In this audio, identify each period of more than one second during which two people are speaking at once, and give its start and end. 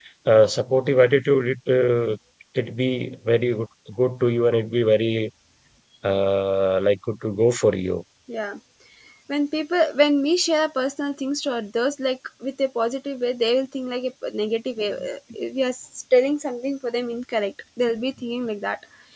none

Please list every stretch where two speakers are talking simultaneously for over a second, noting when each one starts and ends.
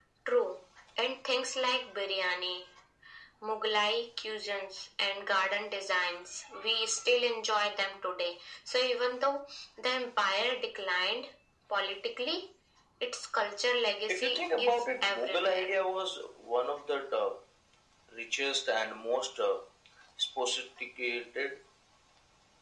14.1-15.6

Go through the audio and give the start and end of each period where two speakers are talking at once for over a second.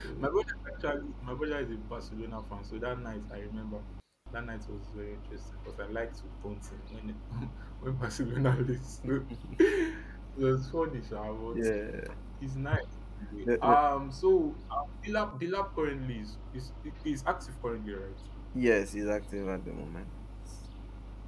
none

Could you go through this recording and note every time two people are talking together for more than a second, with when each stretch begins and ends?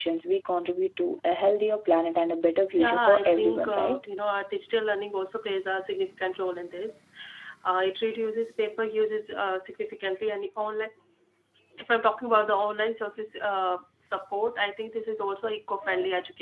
2.8-4.0

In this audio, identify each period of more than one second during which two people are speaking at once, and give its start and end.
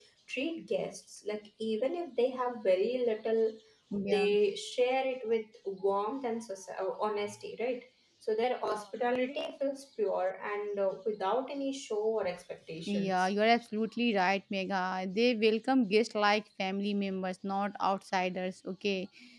none

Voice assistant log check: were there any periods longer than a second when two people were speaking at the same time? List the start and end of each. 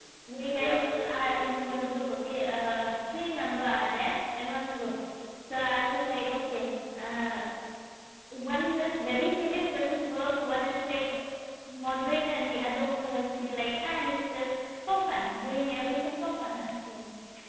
0.6-1.9

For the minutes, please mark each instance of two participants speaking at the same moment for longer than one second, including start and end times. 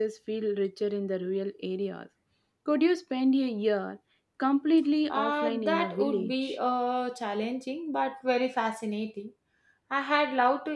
5.1-6.6

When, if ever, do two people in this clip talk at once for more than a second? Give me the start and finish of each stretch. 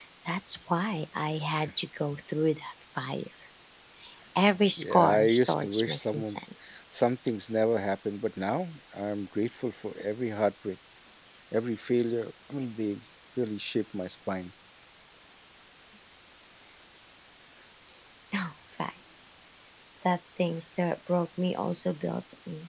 4.8-6.4

